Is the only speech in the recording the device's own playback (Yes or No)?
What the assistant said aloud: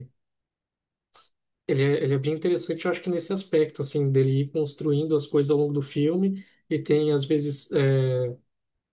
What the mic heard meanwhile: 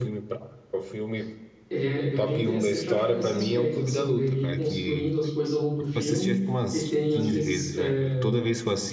No